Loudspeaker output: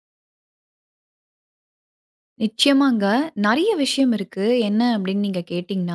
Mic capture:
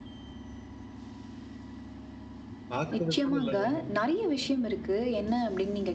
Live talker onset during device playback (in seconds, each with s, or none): 2.7 s